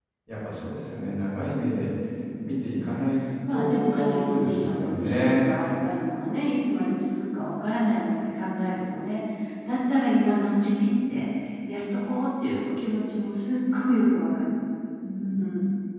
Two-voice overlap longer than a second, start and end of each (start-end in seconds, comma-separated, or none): 3.5-5.5